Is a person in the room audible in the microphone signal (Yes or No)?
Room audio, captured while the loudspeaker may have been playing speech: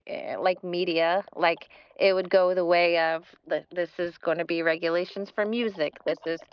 Yes